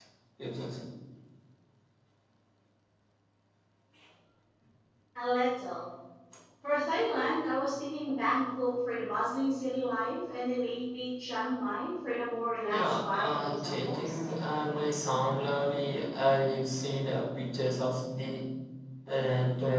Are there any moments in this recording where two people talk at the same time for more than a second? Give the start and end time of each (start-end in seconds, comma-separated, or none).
12.7-14.2